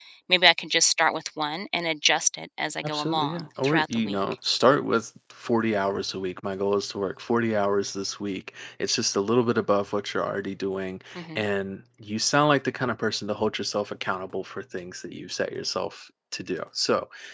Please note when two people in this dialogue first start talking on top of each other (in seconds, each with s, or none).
2.8 s